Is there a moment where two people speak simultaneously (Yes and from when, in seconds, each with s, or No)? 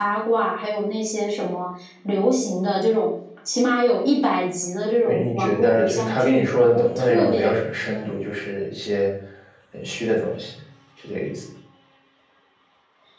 Yes, from 5.0 s